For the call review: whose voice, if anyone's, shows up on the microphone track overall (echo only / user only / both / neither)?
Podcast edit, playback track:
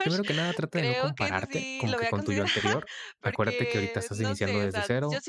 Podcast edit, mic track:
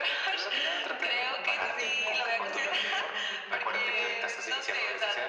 both